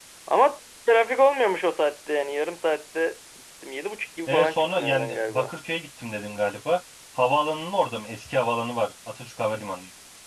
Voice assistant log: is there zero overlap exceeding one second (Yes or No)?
No